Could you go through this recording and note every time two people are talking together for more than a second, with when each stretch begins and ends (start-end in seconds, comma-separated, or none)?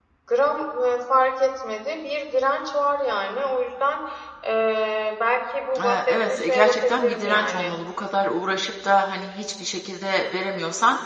5.8-7.8